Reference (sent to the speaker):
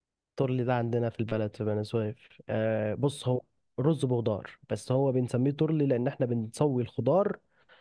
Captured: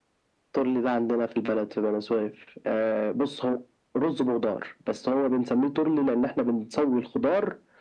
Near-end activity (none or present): none